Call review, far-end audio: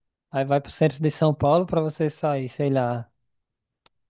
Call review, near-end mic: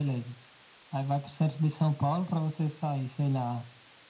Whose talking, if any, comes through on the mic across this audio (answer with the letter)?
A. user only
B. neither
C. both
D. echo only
D